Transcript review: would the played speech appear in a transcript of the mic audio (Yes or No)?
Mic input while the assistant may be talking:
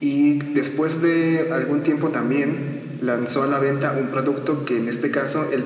Yes